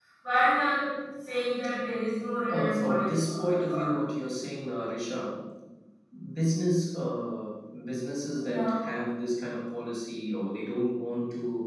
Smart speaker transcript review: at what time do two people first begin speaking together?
2 s

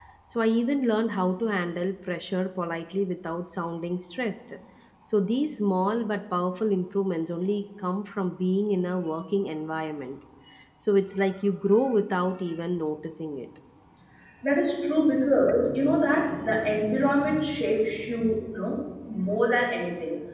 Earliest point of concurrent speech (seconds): none

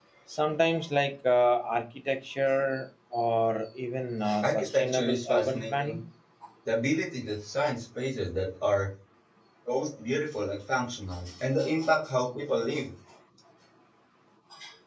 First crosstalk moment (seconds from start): 4 s

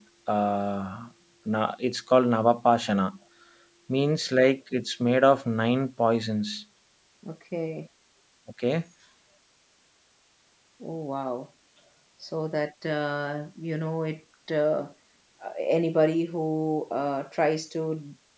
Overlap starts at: none

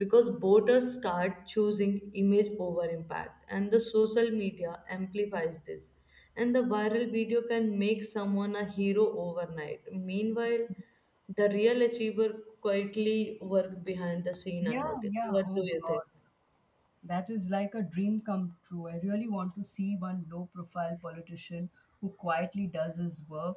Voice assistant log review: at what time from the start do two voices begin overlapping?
15 s

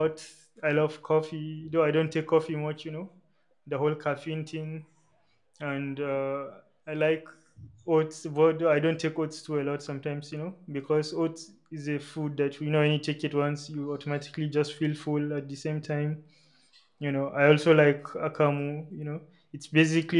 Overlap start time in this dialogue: none

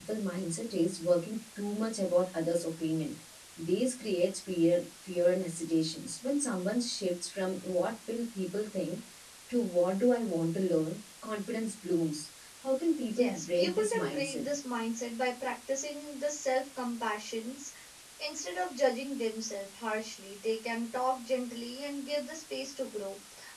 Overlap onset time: 13 s

